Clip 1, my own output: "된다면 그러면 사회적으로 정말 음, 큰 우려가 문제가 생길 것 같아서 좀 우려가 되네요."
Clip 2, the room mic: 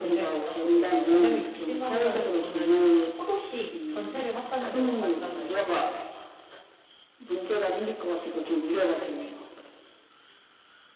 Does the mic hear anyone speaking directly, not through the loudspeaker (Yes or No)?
Yes